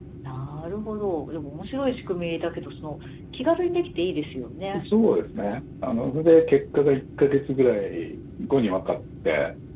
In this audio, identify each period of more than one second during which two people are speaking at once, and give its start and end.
none

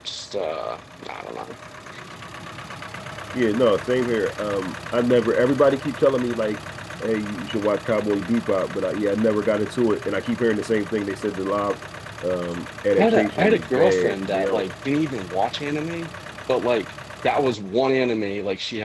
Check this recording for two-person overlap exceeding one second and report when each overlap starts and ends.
13.0-14.7

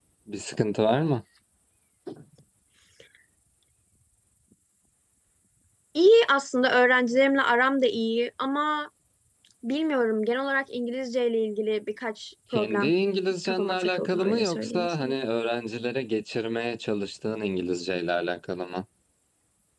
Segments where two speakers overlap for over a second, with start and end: 13.4-15.1

